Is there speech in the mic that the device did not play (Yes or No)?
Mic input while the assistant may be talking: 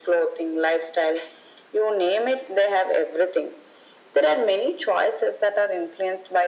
No